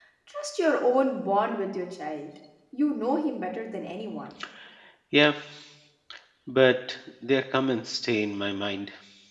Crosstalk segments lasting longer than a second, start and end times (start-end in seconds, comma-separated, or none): none